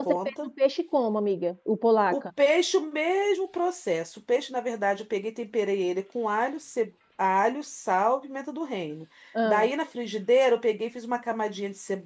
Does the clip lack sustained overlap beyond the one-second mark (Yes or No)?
Yes